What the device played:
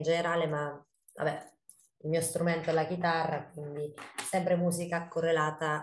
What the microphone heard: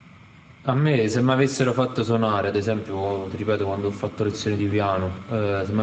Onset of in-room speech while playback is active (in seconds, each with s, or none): 0.6 s